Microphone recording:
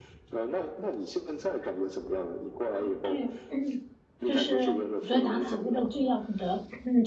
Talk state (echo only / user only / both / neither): both